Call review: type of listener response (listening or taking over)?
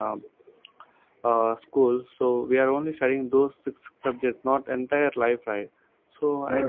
listening